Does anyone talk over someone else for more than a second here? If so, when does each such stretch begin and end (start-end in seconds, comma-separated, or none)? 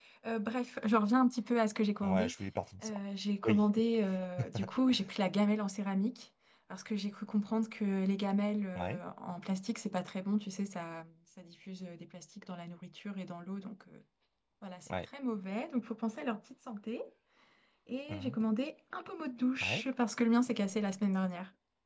none